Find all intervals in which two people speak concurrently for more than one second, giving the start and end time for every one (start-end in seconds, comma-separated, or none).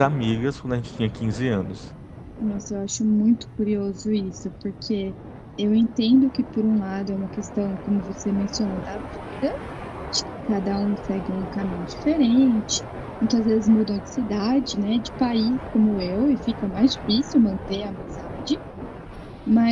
none